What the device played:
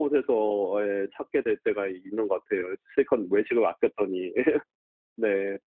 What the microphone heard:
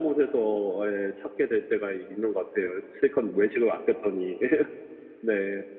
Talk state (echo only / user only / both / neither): echo only